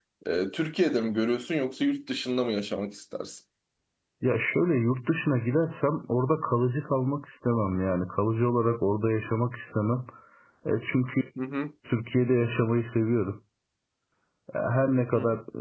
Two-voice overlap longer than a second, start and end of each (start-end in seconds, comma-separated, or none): none